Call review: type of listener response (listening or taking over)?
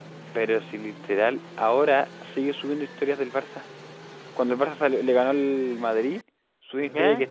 listening